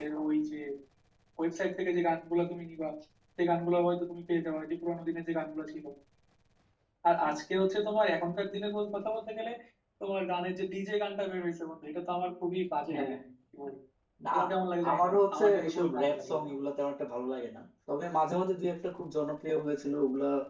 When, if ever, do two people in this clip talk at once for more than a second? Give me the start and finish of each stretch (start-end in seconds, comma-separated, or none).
14.9-16.5